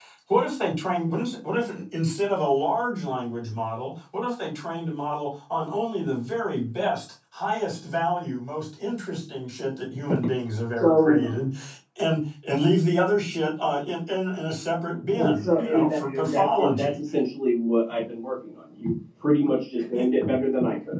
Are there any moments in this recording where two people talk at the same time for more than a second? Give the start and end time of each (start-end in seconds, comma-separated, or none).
15.1-16.9